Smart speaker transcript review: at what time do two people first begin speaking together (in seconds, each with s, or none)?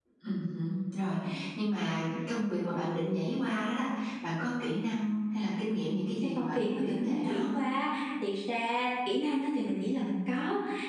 6.4 s